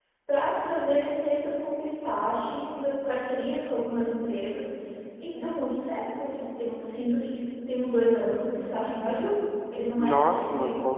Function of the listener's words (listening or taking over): taking over